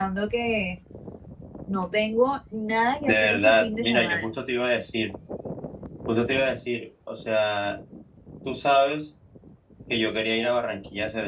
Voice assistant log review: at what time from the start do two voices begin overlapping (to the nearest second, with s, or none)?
3 s